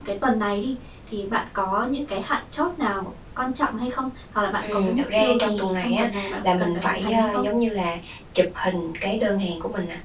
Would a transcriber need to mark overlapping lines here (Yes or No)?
Yes